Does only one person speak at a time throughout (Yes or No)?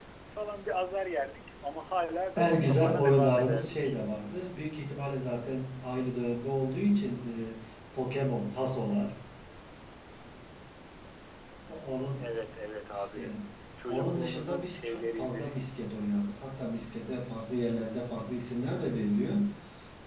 No